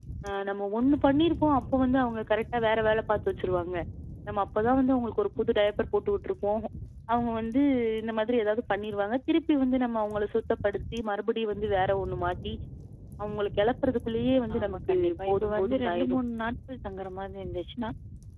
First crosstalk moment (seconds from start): 14.5 s

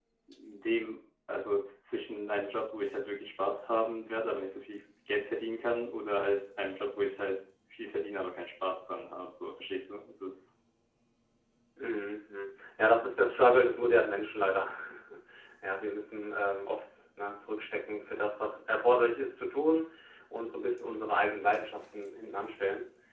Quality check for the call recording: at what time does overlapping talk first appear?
none

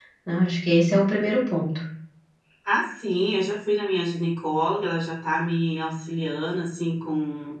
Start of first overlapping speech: none

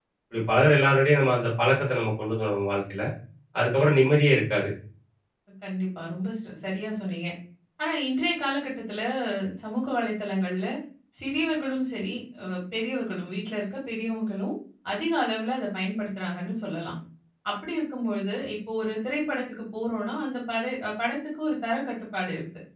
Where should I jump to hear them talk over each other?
none

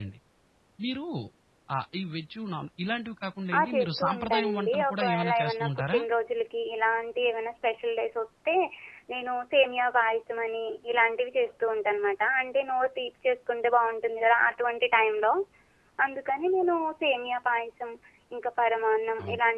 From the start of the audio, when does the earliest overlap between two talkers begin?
3.5 s

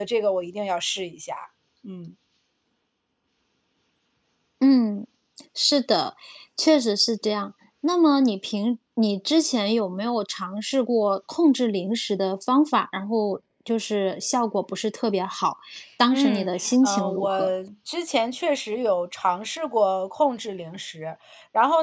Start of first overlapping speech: 16.1 s

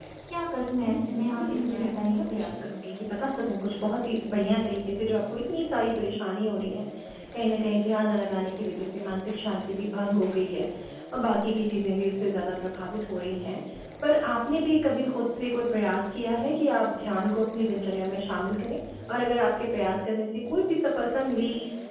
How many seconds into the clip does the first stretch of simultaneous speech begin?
0.8 s

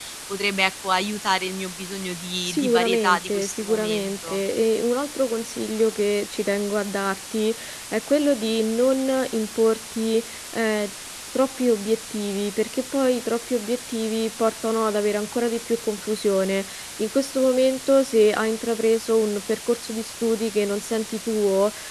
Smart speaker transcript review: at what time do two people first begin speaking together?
2.5 s

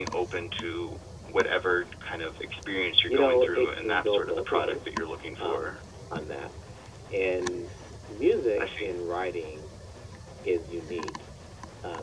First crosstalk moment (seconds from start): 3.1 s

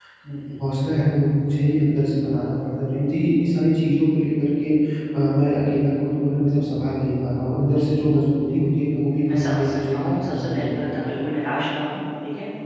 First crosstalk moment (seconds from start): 9.3 s

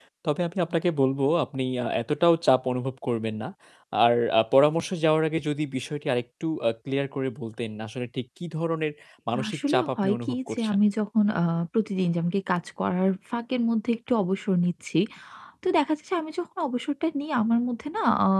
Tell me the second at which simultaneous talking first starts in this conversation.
9.5 s

